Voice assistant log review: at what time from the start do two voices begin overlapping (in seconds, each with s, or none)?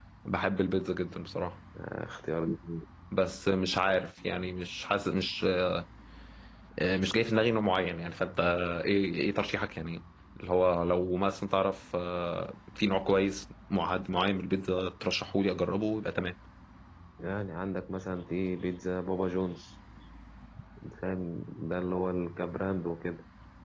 none